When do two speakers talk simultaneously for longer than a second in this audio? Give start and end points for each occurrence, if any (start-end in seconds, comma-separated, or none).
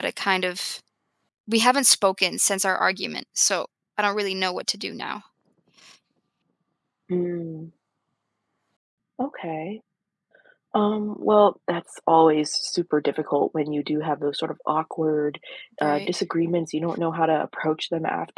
none